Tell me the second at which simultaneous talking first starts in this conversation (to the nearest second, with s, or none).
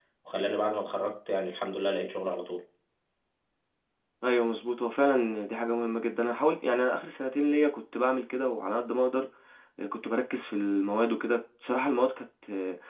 none